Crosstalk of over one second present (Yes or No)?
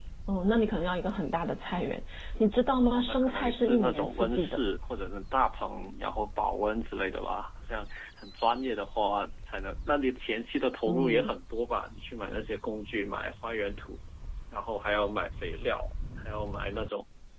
Yes